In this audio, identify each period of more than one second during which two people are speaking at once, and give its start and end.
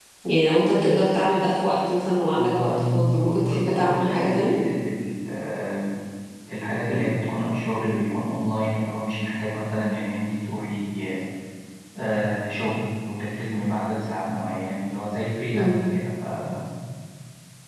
2.4-4.6

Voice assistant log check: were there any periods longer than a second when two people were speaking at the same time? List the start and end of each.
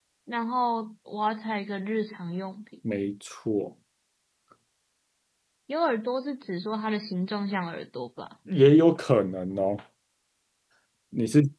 none

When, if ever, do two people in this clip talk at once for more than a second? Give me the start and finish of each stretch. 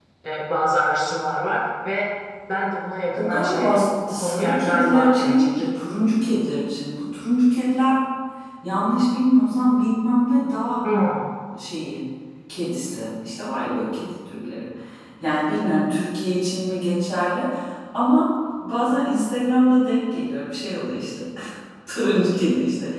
3.2-5.5

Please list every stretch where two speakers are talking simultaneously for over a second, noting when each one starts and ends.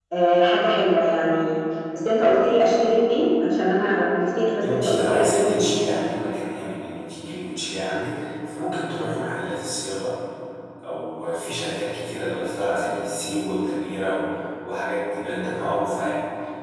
4.6-5.8

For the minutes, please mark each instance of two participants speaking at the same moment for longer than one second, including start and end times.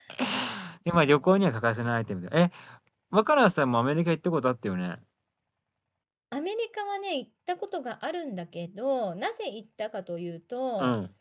none

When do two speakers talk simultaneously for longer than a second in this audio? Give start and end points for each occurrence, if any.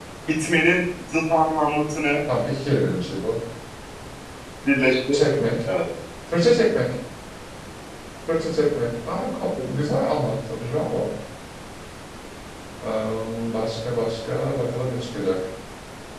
none

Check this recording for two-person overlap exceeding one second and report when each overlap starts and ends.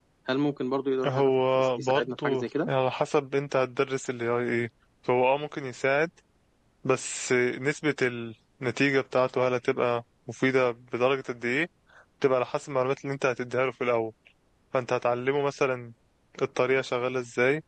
1.0-2.7

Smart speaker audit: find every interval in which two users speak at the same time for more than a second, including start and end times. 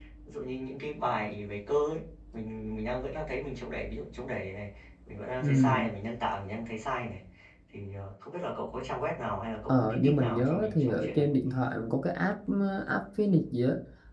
9.7-11.3

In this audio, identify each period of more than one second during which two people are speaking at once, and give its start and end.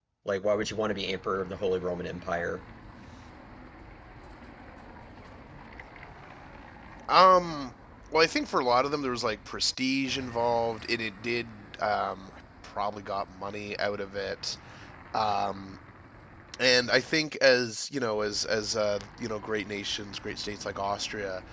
none

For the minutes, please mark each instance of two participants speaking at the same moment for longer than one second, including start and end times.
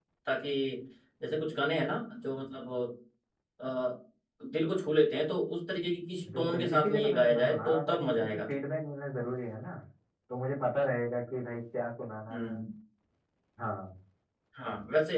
6.3-8.5

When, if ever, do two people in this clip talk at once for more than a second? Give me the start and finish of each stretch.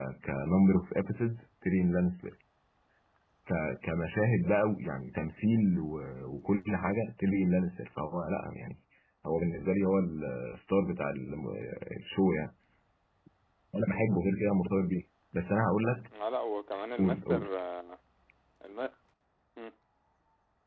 none

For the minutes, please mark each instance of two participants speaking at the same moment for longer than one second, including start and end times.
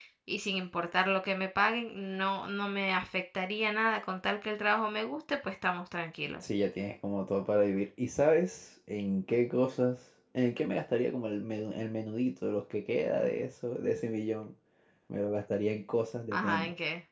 none

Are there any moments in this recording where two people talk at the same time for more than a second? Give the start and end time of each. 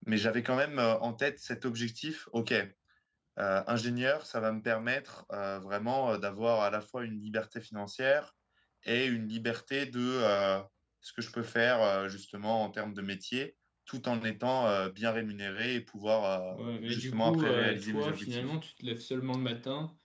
16.5-18.5

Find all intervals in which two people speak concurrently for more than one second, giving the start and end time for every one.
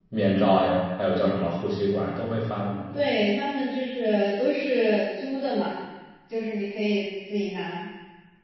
none

